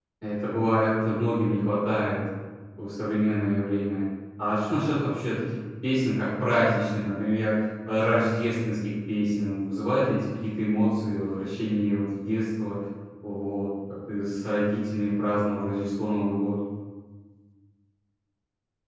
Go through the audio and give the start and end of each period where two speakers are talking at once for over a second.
none

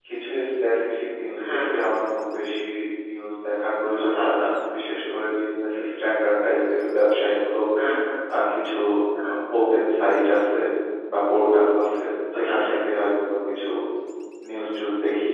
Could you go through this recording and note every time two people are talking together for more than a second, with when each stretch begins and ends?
none

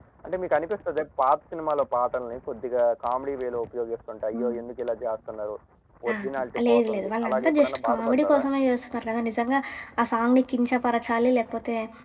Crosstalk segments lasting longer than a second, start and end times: 6.7-8.4

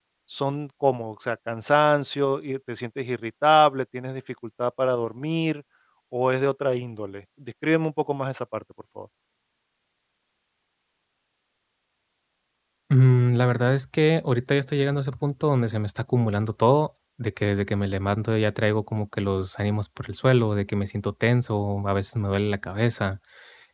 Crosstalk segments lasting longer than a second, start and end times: none

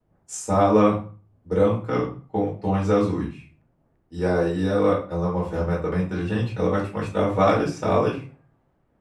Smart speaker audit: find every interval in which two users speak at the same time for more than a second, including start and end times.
none

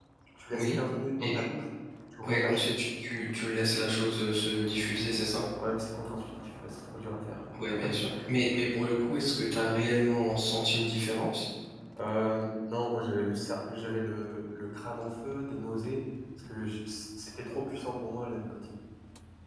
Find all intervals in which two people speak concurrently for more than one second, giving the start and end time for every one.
none

